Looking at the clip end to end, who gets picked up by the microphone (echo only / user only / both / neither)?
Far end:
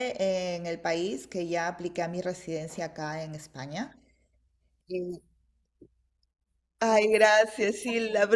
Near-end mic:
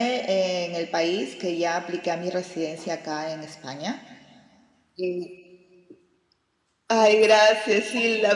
echo only